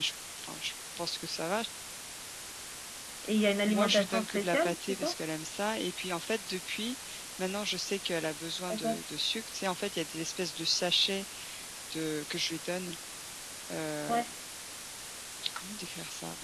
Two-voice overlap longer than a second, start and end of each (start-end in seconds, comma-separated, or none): 3.7-5.1